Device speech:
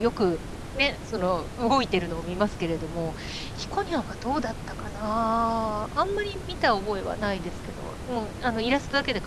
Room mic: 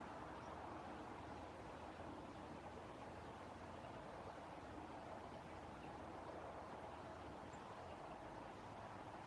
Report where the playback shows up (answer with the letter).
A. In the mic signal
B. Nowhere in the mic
B